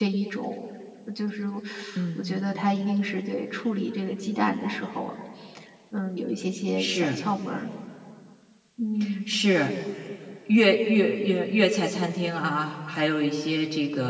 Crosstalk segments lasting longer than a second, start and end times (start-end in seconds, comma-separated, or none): none